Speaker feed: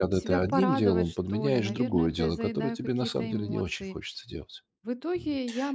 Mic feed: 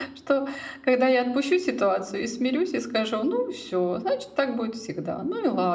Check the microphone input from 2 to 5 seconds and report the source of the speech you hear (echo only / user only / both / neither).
user only